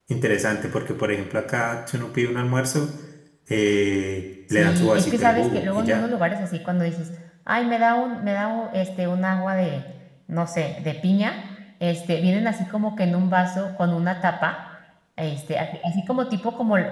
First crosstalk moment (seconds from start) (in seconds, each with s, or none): 4.5 s